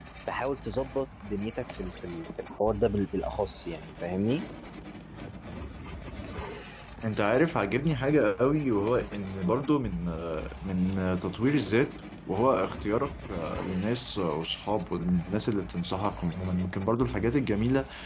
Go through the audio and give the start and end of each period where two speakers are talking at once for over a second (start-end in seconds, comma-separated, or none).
none